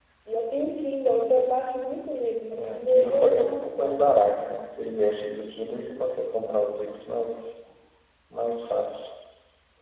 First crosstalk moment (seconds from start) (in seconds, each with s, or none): 2.6 s